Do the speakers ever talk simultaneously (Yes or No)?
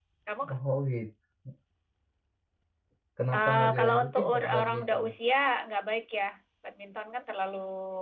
Yes